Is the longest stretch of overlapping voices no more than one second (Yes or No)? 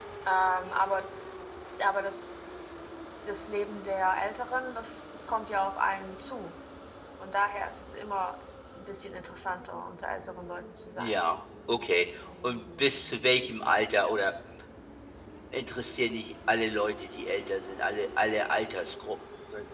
Yes